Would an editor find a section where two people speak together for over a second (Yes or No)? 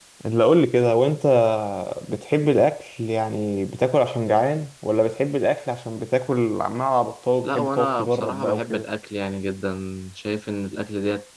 Yes